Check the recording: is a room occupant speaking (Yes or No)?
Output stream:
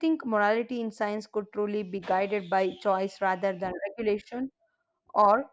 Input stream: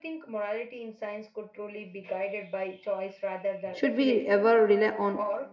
Yes